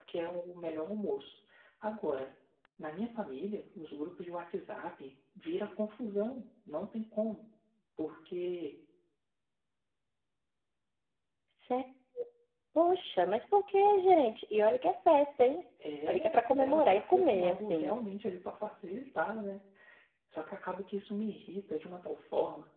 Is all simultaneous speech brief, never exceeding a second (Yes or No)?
No